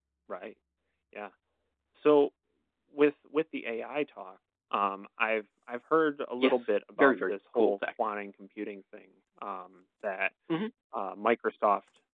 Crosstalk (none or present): present